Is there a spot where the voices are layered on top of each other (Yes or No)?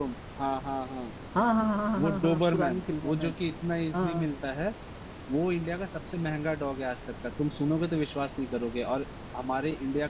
Yes